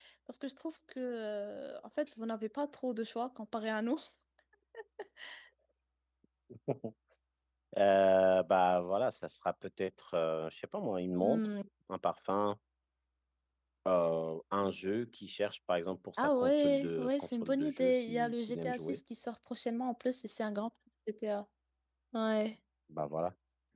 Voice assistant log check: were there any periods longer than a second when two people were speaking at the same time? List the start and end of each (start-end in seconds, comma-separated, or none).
16.2-19.0